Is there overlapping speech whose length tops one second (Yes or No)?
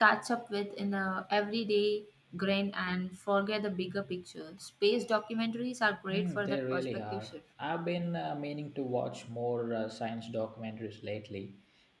Yes